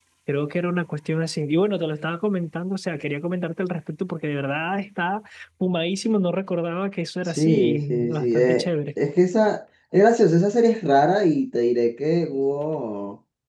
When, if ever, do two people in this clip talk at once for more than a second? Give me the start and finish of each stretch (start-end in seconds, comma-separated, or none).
7.2-8.7